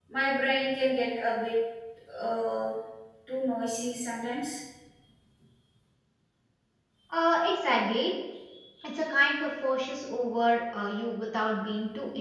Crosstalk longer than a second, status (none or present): none